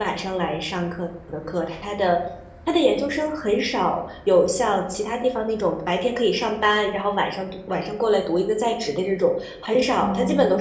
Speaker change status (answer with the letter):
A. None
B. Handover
A